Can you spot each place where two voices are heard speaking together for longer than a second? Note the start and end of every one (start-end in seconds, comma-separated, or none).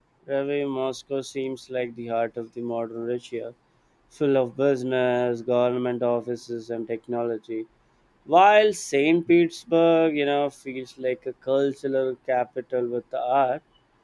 none